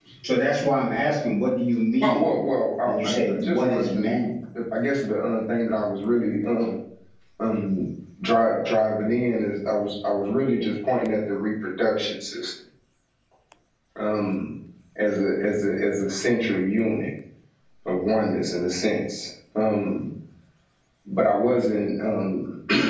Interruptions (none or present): present